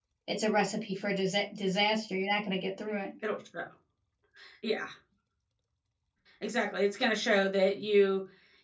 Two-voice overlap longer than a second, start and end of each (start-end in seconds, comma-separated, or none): none